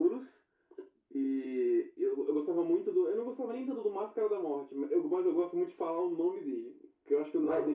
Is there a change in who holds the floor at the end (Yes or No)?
No